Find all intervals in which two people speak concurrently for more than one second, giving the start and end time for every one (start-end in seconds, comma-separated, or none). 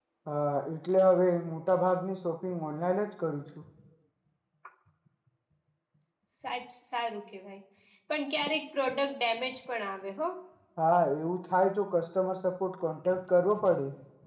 none